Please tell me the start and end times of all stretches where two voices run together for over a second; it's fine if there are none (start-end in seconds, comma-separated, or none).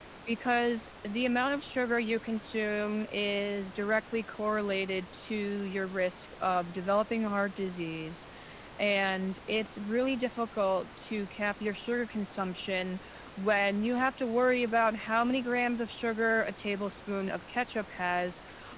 none